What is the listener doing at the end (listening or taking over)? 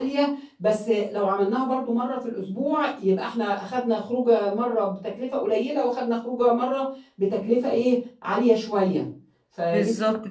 taking over